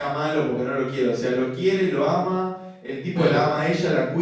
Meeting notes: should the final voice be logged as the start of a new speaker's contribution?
No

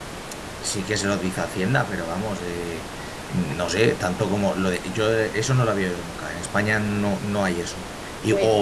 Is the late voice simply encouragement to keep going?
Yes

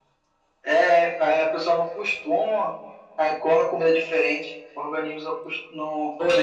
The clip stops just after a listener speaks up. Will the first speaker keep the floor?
No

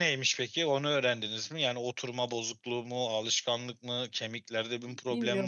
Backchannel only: No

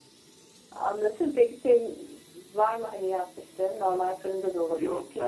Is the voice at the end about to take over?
Yes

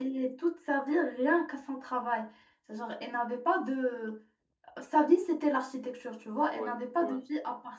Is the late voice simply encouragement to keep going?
Yes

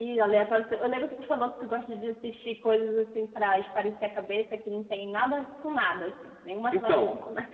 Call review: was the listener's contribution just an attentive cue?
No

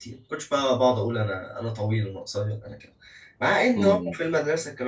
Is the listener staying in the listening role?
Yes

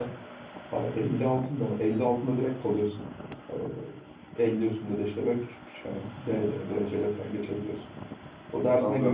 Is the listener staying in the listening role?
Yes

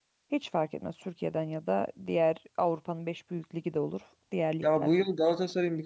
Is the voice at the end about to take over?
Yes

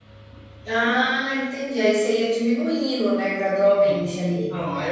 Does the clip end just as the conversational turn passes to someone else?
Yes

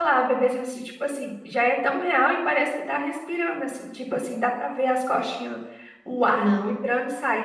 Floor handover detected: No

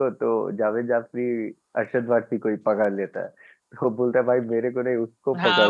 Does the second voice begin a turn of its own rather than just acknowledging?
Yes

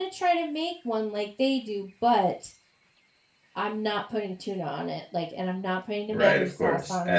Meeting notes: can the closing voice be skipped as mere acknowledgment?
No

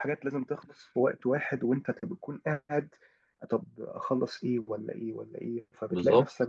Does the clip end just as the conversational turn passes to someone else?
No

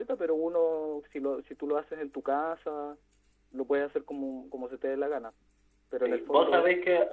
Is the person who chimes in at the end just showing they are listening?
No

